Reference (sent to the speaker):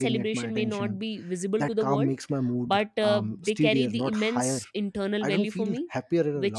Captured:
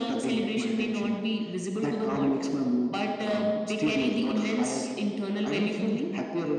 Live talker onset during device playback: none

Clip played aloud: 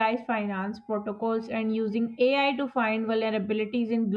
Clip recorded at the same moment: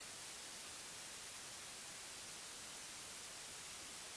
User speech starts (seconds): none

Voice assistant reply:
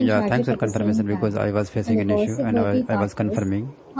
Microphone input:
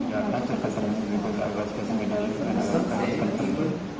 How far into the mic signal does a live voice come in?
2 s

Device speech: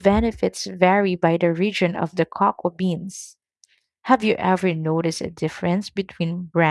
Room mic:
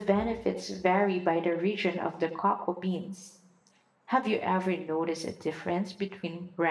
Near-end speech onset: none

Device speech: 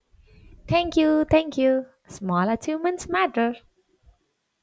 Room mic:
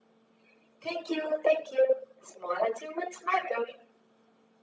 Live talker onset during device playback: none

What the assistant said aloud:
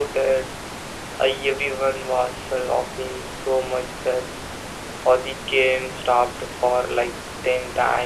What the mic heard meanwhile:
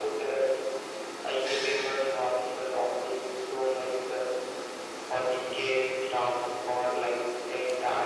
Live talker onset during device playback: none

